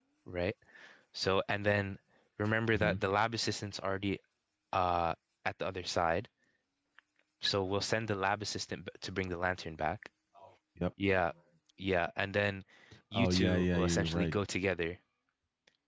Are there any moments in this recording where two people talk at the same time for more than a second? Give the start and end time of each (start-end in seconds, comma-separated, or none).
13.1-14.4